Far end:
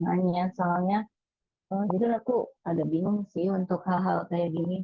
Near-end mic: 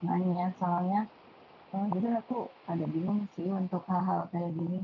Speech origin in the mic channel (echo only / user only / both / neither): echo only